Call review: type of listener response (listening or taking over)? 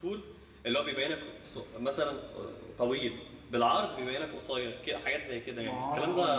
taking over